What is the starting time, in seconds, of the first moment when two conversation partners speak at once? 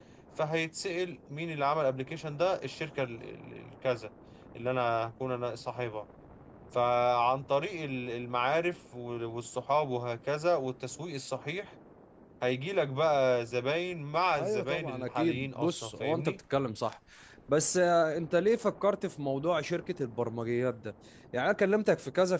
14.4 s

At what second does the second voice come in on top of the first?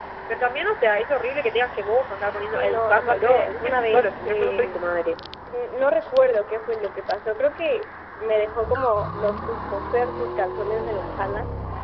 2.4 s

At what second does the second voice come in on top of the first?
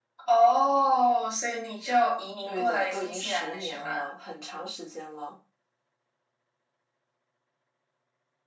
2.5 s

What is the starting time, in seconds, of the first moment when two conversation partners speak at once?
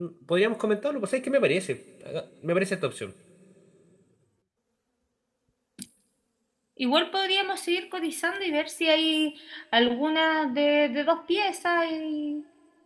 none

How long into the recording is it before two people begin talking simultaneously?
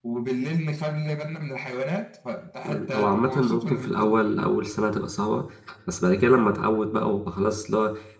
2.6 s

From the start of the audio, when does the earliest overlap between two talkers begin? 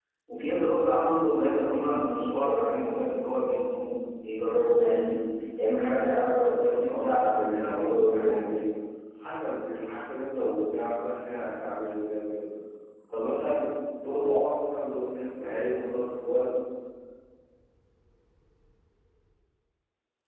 6.4 s

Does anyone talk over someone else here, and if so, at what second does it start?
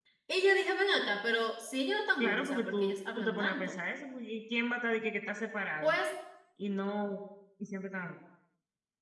2.2 s

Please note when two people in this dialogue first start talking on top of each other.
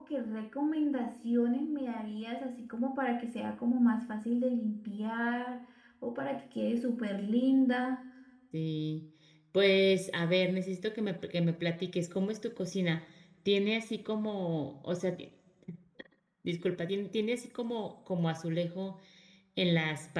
none

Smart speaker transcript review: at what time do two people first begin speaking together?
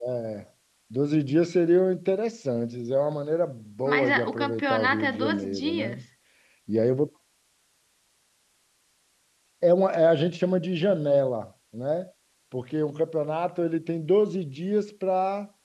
3.9 s

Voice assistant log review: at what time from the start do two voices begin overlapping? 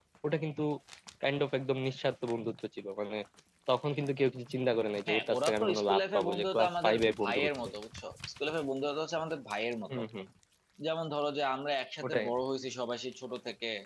5.1 s

